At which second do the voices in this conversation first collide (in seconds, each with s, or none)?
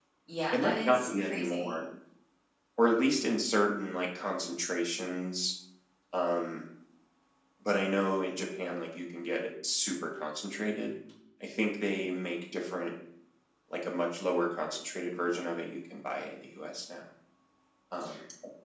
0.5 s